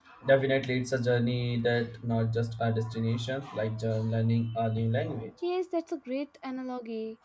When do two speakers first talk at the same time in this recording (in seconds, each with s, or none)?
none